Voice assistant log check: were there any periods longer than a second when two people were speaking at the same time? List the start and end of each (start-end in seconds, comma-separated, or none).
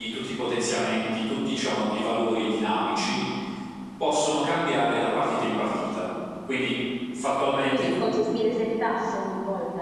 none